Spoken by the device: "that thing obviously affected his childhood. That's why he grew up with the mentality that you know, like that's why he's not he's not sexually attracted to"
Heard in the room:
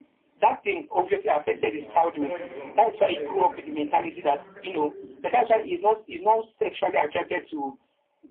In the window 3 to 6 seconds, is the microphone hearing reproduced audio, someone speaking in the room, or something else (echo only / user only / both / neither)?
both